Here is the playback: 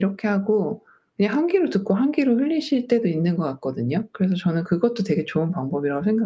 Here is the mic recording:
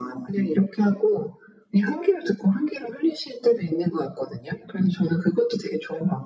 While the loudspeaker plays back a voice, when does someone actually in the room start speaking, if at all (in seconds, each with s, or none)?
none